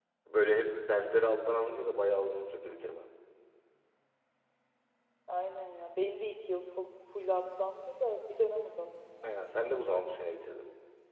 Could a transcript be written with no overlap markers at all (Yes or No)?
Yes